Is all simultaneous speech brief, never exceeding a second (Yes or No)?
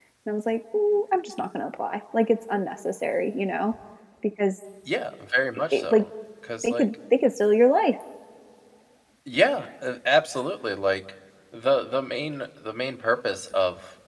Yes